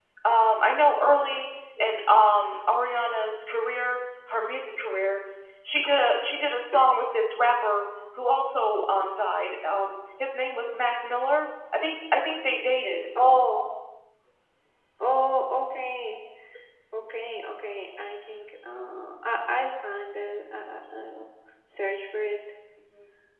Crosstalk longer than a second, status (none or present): none